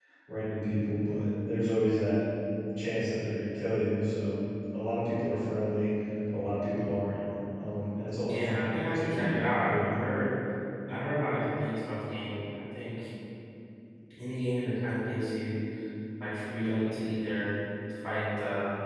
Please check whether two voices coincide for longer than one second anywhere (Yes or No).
Yes